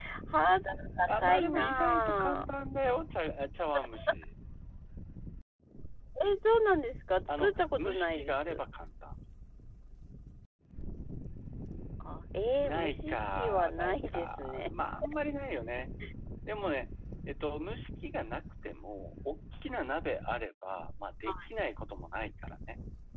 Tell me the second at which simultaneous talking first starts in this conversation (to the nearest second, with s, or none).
1 s